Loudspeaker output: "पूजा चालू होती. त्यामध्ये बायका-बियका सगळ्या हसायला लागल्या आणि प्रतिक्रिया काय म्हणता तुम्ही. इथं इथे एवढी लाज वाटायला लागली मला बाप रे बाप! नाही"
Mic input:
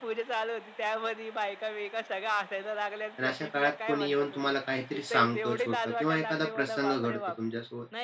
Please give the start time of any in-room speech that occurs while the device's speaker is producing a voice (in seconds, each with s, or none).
3.2 s